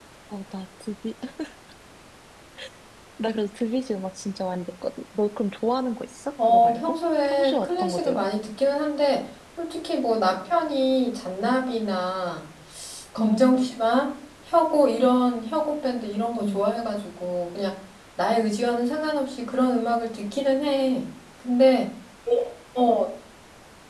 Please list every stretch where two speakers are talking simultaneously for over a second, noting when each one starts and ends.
6.4-8.3

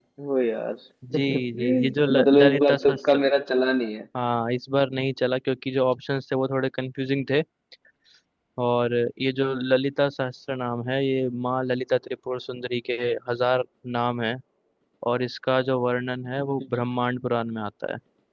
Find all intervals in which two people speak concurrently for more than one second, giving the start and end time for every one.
1.1-3.0

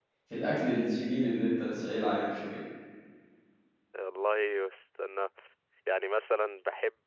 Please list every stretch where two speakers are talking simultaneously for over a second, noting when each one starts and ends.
none

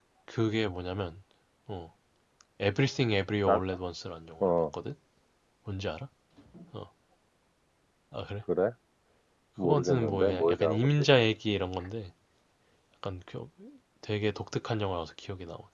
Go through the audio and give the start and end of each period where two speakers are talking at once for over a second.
9.6-11.1

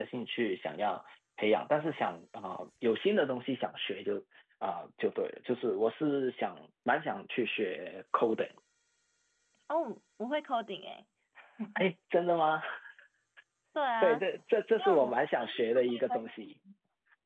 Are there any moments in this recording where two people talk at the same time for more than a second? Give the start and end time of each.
14.8-16.2

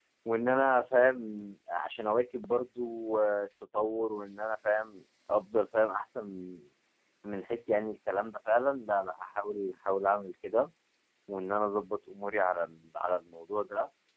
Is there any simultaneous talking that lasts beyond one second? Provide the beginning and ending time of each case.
none

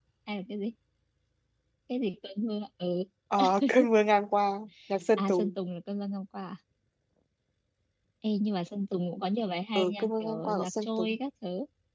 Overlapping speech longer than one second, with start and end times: 9.8-11.2

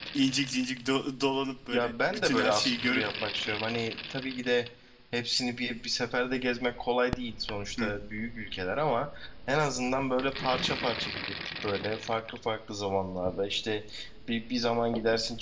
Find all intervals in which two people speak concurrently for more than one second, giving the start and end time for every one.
1.7-3.0

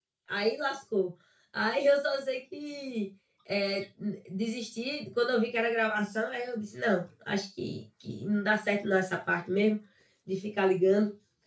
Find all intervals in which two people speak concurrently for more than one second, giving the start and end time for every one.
none

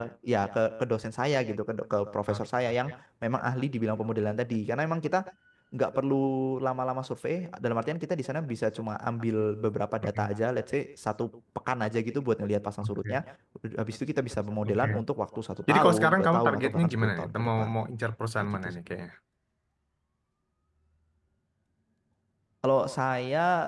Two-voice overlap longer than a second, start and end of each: 15.7-17.7

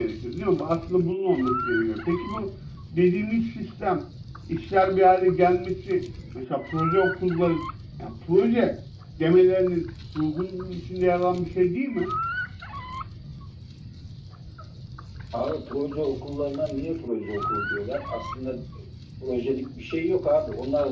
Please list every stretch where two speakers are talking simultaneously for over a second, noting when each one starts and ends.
none

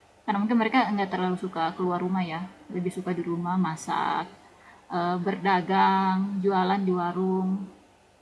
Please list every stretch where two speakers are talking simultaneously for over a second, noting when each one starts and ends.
none

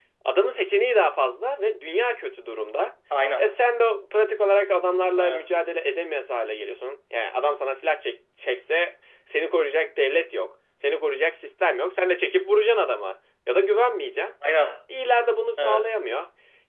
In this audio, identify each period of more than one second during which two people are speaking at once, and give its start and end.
none

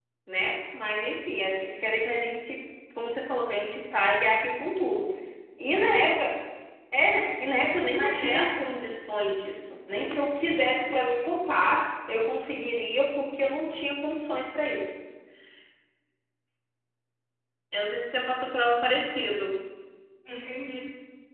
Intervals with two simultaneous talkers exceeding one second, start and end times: none

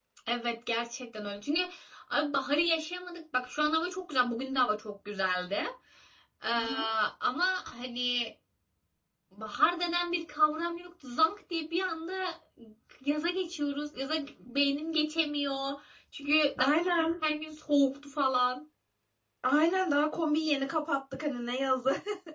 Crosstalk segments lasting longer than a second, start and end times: none

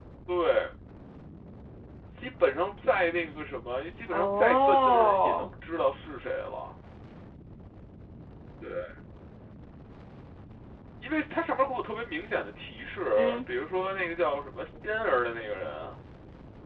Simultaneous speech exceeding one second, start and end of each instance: 4.1-5.5

